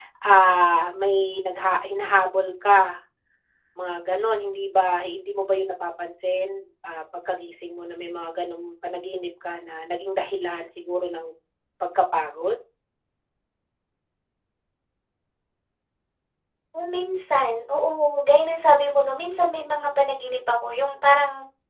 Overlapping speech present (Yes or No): No